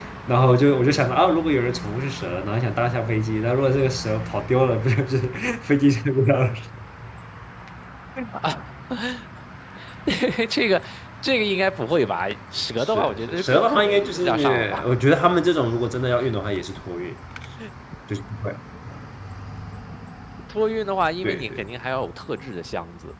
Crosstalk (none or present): present